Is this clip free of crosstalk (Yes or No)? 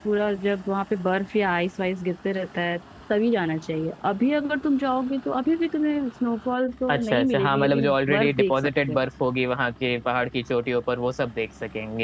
No